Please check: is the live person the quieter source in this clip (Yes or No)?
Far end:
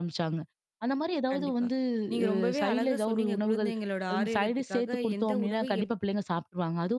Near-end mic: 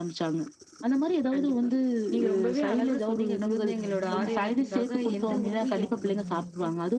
Yes